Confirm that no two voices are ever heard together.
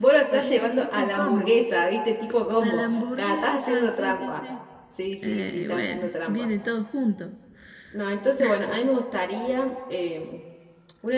No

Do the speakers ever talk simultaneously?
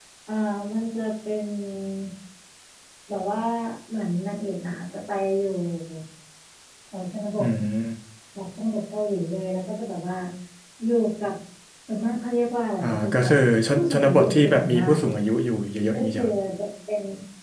Yes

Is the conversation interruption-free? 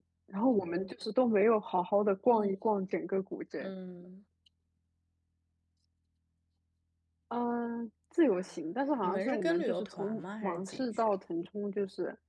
No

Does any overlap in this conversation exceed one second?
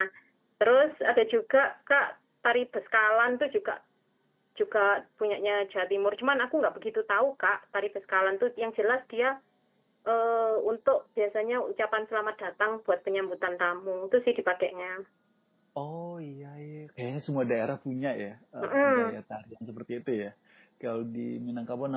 No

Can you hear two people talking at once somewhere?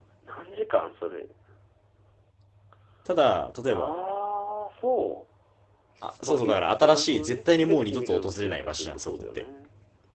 Yes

